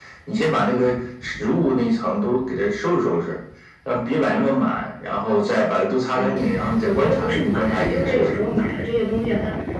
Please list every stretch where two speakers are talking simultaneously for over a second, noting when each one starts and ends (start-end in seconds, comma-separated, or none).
6.1-8.4